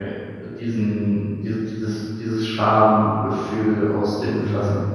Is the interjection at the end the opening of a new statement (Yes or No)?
Yes